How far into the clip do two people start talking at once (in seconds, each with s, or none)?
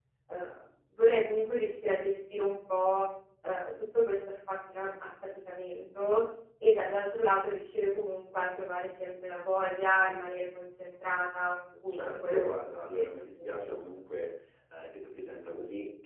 11.9 s